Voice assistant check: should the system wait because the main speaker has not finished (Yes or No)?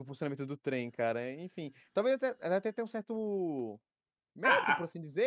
No